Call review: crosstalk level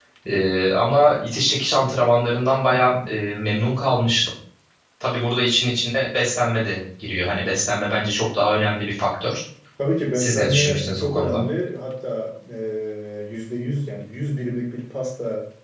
present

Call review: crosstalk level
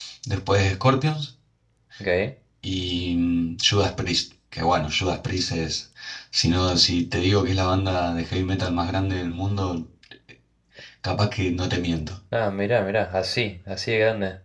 none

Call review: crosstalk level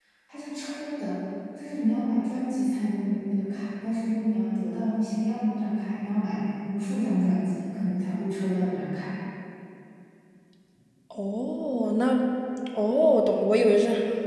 none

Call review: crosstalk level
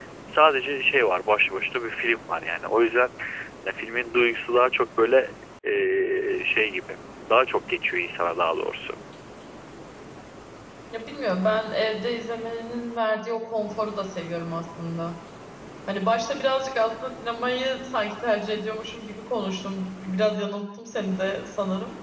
none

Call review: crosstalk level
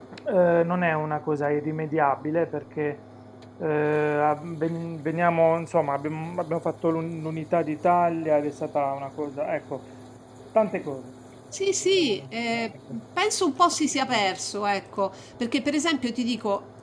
none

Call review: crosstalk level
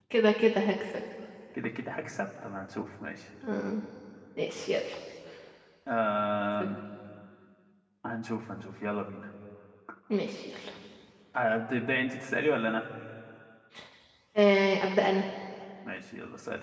none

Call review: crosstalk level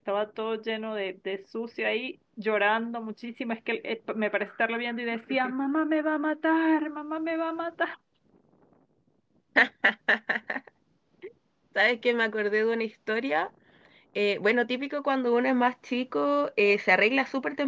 none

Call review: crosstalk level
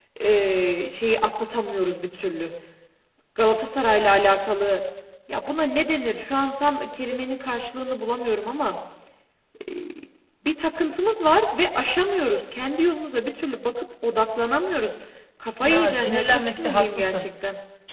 present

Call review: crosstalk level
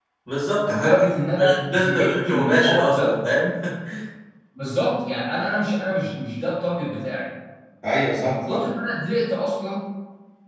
present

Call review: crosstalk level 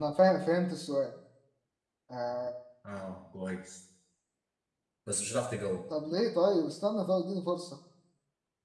none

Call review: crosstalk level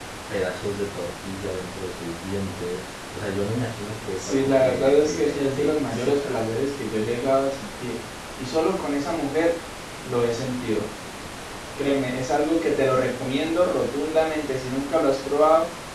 present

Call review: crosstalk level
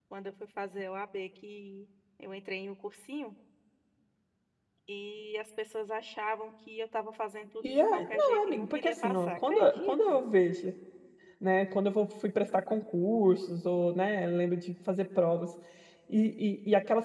present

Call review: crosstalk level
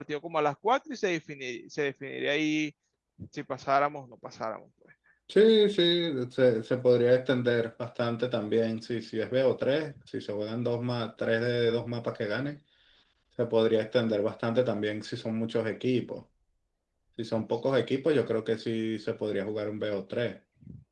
none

